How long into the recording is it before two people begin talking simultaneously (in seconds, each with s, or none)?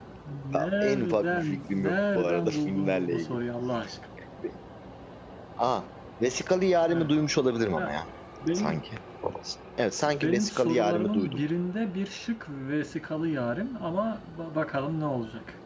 0.5 s